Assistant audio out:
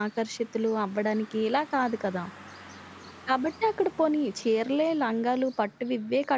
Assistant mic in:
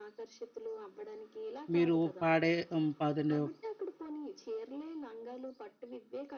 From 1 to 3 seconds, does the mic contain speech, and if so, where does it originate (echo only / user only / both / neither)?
both